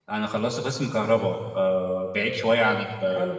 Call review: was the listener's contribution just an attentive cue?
Yes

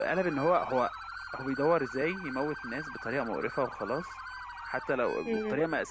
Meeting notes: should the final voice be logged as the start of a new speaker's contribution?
No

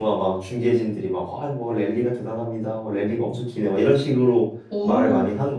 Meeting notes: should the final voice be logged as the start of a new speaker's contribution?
Yes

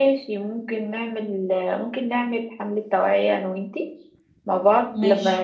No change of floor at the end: Yes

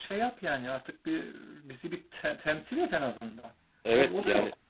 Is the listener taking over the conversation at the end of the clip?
Yes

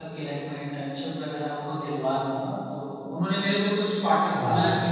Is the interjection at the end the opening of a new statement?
No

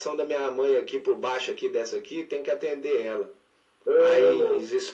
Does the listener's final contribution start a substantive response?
No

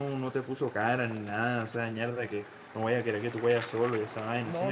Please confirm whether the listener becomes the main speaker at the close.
Yes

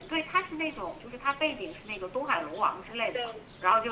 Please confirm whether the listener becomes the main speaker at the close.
No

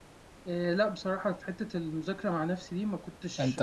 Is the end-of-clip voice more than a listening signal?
No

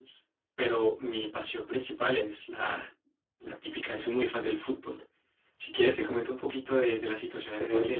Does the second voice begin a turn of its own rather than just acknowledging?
Yes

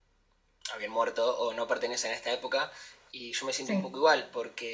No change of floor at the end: Yes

